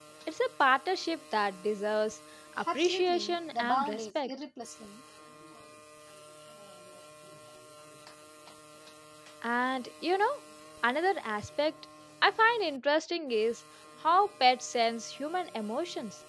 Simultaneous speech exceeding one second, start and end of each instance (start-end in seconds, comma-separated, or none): 2.7-4.3